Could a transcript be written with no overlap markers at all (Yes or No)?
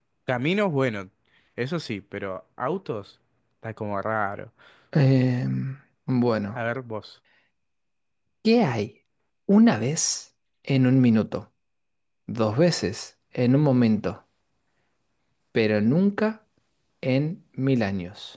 Yes